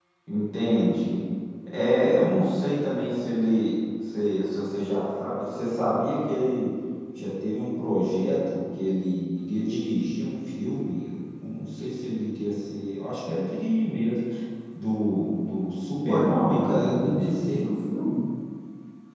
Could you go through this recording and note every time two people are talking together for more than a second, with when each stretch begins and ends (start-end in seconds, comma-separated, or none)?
16.0-17.6